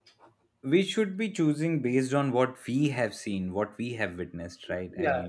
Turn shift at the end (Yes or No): Yes